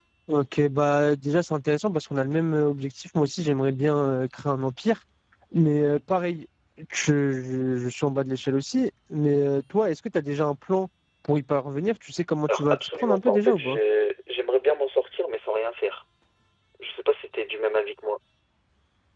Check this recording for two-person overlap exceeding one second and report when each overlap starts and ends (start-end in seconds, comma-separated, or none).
12.5-13.8